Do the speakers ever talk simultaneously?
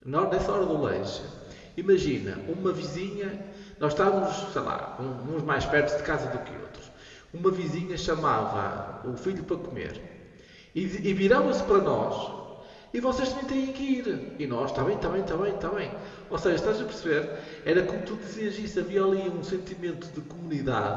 No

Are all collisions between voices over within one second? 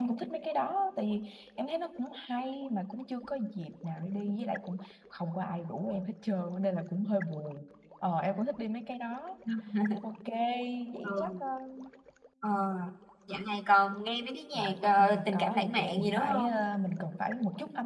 No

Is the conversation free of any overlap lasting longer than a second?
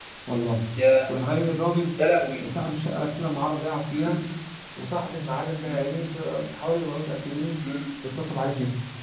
Yes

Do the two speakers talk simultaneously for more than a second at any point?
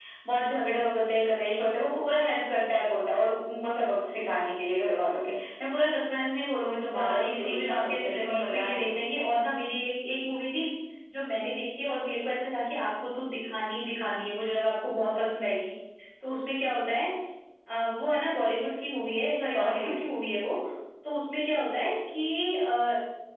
Yes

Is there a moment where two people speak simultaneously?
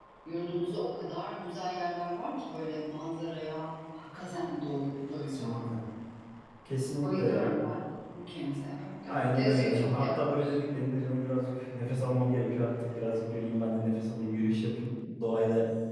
Yes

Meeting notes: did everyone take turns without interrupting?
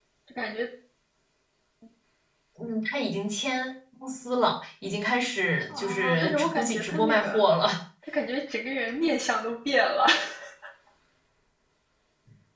No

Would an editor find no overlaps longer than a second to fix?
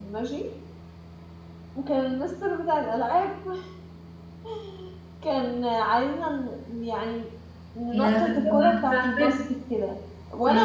No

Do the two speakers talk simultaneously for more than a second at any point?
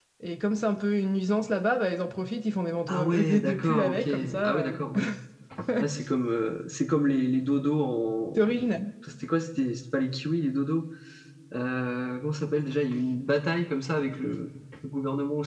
Yes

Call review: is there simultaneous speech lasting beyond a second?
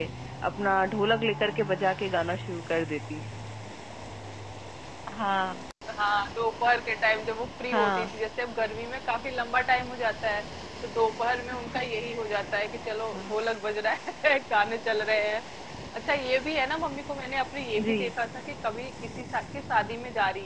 No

